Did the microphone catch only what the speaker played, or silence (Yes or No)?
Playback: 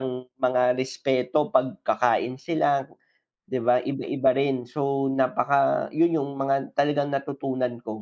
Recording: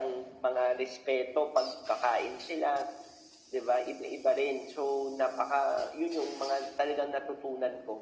Yes